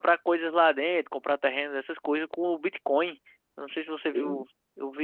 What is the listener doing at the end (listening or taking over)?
listening